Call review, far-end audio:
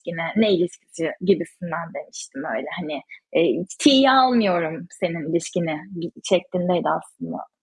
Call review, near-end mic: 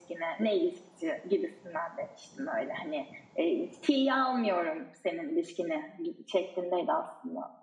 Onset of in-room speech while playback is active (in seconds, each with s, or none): none